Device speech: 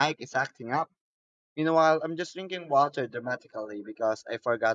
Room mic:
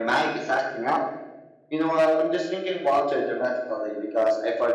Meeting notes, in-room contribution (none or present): none